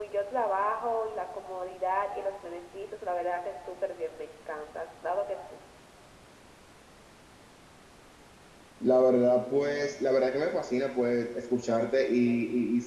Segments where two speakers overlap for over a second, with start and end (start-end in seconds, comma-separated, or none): none